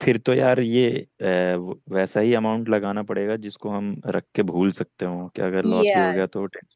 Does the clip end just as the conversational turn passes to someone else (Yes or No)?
Yes